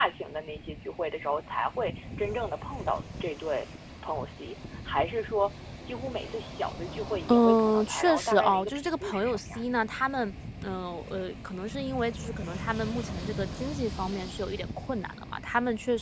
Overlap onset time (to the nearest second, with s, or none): 7 s